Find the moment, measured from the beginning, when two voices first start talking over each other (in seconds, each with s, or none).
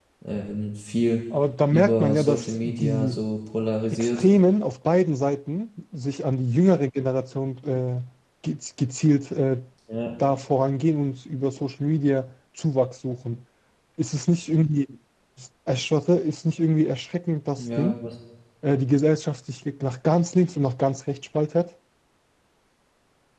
1.7 s